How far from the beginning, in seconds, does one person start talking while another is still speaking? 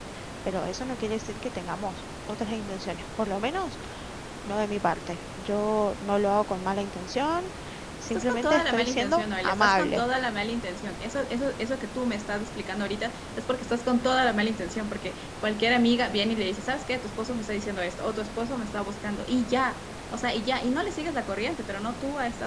8.1 s

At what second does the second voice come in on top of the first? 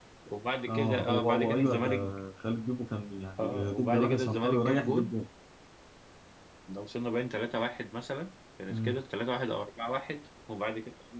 0.7 s

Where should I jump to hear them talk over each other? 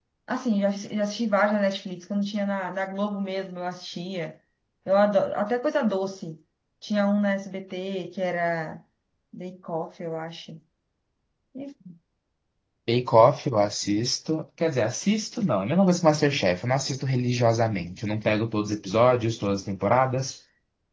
none

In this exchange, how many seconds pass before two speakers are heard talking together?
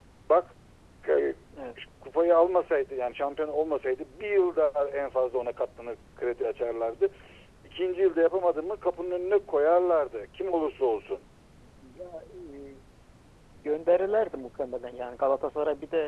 none

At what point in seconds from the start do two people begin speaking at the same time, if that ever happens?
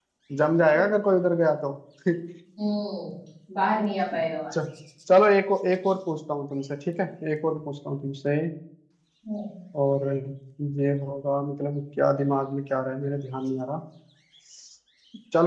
none

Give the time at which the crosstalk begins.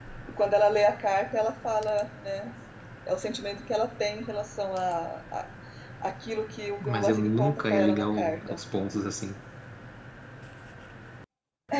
6.8 s

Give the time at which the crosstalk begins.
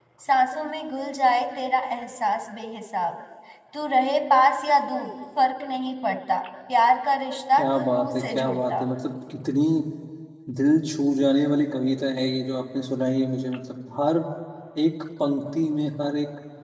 7.6 s

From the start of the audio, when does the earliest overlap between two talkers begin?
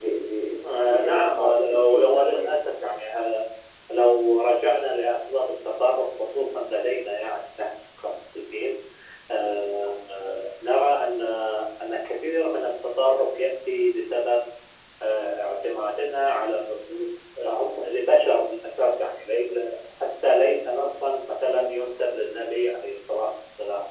0.7 s

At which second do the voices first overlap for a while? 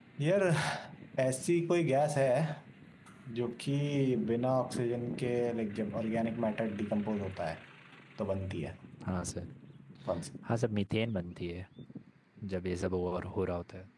none

